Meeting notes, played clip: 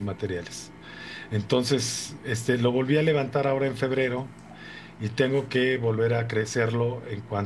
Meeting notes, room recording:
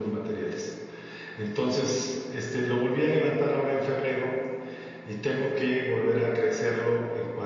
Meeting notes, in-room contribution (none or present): none